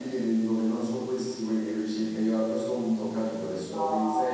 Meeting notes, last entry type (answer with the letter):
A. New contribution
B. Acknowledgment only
A